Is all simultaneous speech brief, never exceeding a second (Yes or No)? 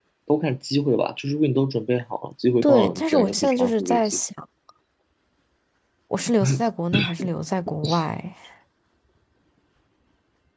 No